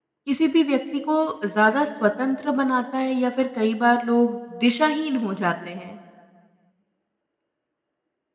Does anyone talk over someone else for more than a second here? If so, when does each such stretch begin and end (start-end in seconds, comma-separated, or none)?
none